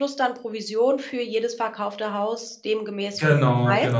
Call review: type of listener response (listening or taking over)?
taking over